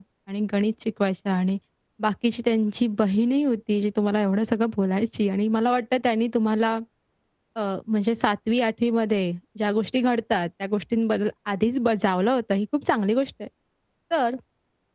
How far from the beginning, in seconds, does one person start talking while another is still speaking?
none

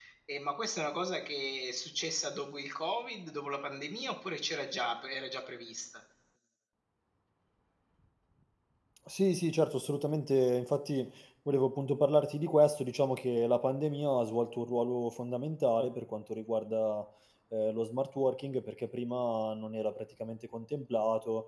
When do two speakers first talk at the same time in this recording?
none

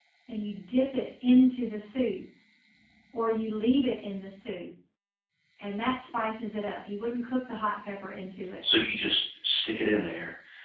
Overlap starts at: none

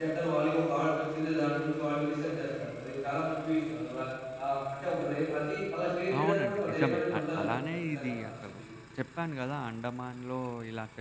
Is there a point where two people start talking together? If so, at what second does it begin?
6.1 s

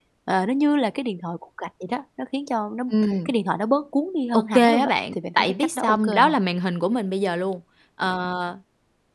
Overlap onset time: 4.3 s

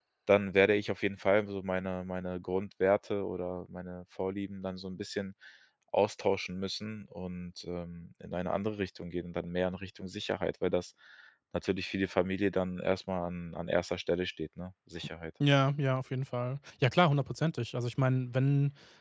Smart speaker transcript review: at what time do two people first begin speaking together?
none

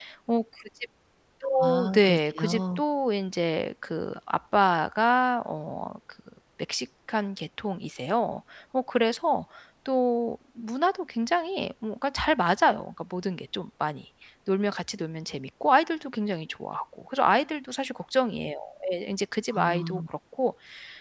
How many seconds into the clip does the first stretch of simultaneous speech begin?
1.6 s

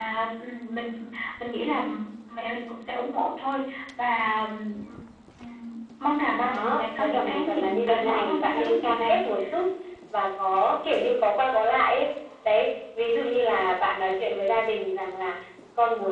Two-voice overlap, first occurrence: 6.3 s

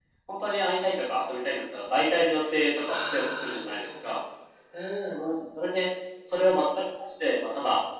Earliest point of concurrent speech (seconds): 2.9 s

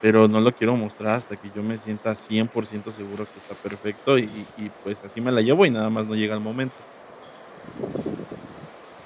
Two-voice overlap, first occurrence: none

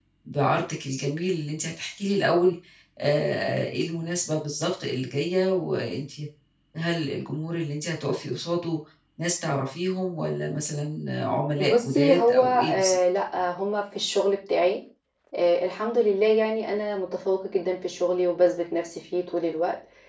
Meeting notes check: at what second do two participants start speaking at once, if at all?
11.6 s

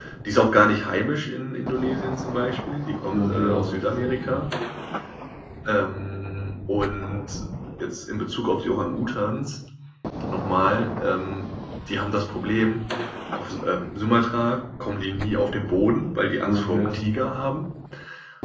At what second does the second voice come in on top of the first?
3.1 s

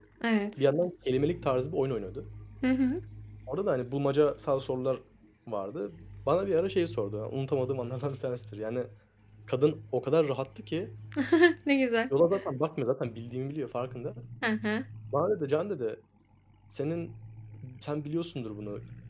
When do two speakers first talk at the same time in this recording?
none

